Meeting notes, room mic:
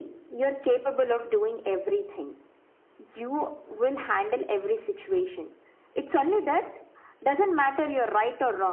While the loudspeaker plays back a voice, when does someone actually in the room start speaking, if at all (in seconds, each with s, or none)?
none